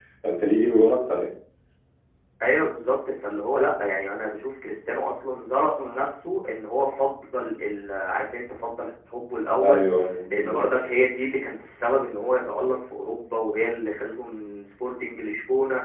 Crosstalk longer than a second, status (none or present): none